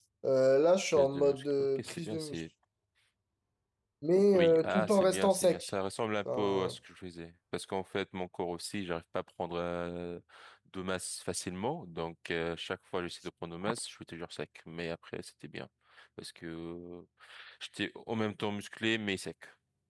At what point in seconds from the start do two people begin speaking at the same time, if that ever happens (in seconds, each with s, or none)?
0.9 s